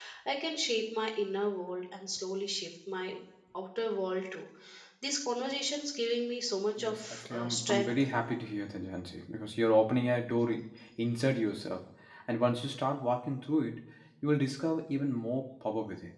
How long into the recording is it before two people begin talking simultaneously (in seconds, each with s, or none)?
6.8 s